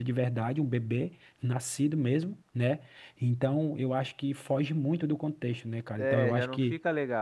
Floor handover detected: Yes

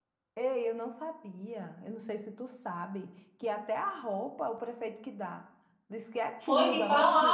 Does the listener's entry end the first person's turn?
Yes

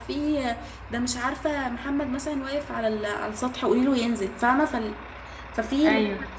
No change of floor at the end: Yes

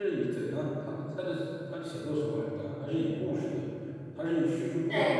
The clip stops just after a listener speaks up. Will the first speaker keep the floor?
Yes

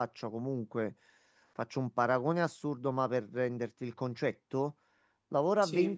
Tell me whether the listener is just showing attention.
Yes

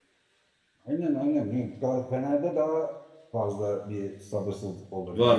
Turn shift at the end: Yes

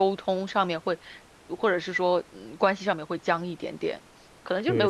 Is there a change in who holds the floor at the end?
Yes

